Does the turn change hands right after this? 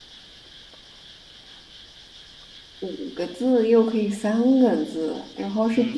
Yes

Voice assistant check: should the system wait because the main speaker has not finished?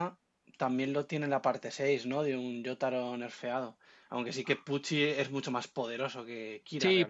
No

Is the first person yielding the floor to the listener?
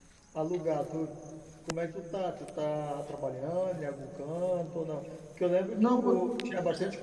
No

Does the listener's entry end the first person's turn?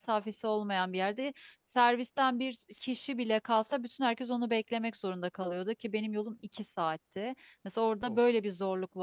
No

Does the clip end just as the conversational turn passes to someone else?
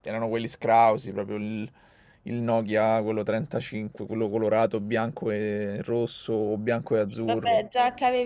Yes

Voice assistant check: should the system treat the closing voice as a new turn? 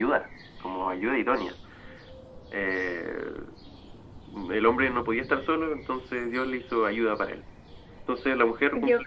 No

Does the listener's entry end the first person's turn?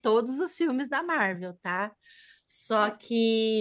No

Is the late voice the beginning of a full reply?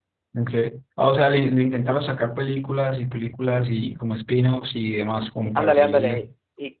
Yes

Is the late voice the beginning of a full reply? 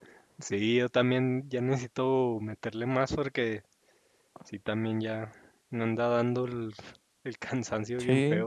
Yes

